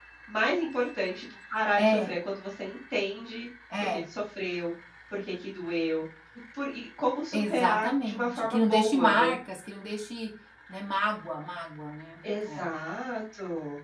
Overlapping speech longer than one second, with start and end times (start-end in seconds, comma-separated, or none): 7.3-9.3